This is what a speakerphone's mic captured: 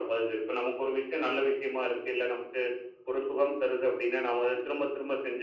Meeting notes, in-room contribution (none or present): none